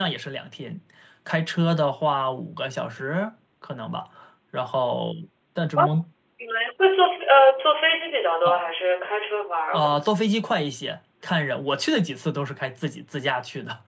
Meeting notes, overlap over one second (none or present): none